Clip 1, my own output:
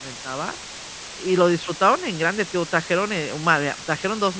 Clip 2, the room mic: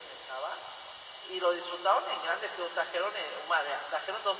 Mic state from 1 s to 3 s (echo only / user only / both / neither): echo only